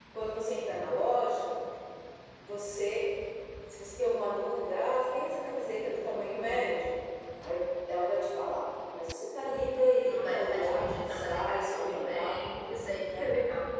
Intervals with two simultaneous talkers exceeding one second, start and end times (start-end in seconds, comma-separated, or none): 10.1-12.4